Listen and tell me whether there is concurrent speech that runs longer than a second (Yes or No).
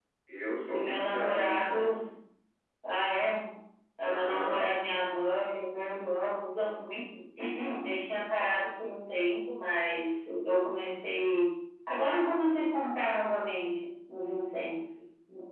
Yes